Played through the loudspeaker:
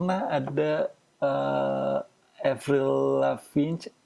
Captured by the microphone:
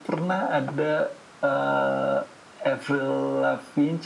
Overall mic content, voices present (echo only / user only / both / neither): echo only